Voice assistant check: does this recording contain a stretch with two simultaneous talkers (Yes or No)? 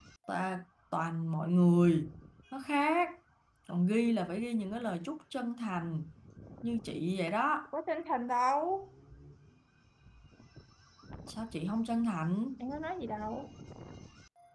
No